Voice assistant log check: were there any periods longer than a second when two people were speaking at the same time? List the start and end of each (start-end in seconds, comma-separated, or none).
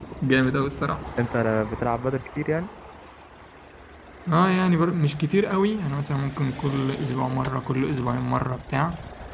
none